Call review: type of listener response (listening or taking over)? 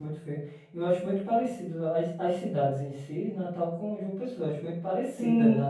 taking over